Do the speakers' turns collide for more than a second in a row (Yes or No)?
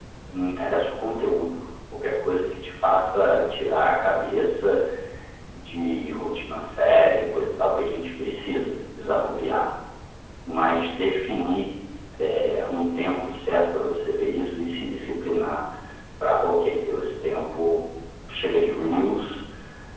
No